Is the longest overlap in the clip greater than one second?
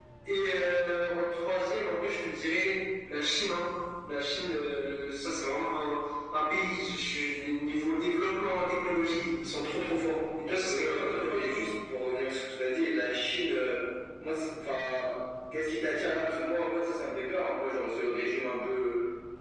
Yes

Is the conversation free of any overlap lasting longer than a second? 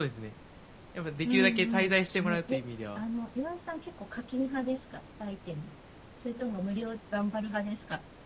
No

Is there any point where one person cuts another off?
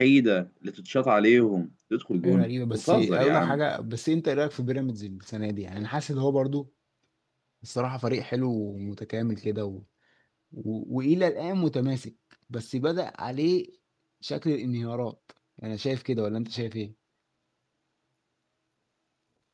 Yes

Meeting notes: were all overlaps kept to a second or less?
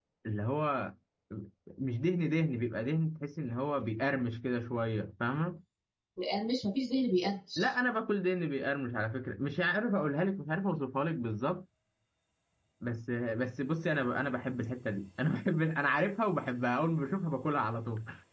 Yes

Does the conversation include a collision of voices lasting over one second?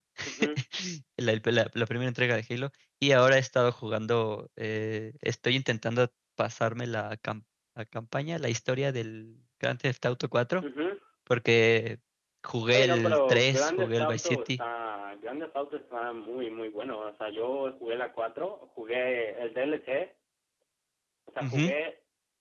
Yes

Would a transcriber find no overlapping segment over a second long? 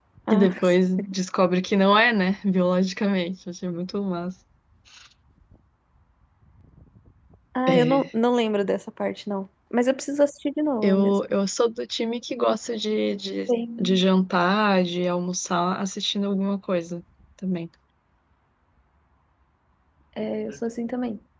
Yes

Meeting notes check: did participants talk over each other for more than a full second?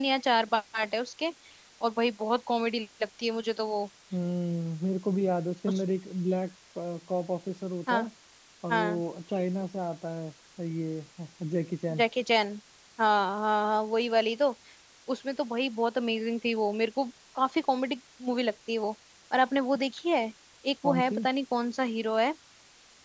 No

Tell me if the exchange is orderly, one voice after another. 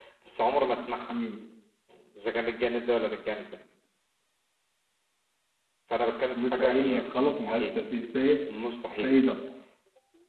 No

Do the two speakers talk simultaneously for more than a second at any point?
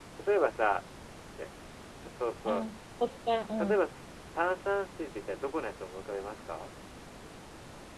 No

